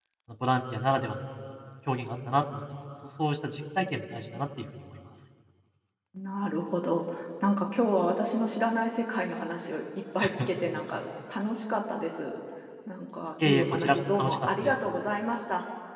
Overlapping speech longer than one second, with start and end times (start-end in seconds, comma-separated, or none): 13.4-14.7